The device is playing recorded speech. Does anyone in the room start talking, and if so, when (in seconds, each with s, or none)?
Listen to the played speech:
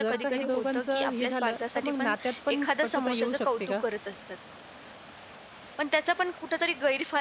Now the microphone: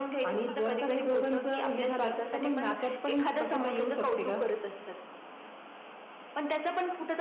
none